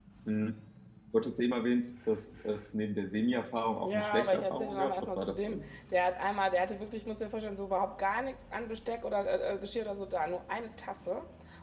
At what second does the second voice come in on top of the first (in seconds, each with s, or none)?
3.8 s